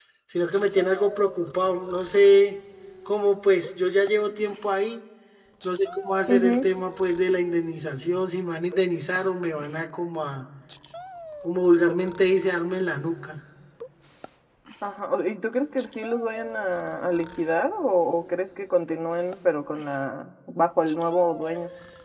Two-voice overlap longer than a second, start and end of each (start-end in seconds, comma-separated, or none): none